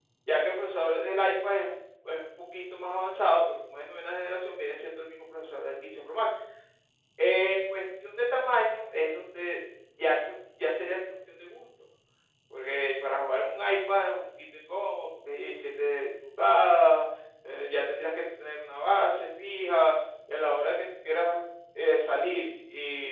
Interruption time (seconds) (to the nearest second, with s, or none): none